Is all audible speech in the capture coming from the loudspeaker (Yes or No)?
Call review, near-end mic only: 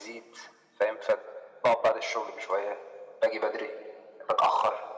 Yes